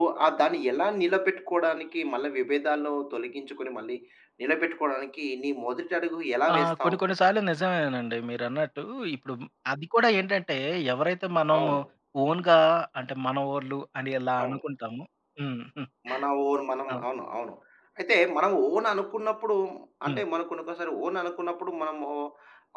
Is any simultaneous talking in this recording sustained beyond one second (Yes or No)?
No